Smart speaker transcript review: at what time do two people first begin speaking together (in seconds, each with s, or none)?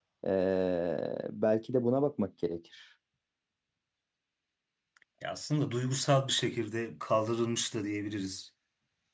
none